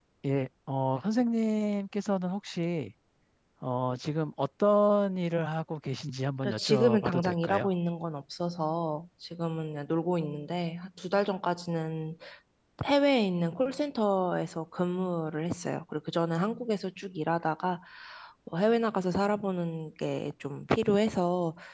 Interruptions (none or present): present